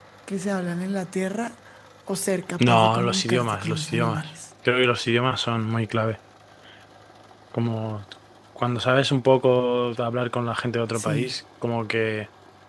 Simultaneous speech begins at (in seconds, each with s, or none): 2.6 s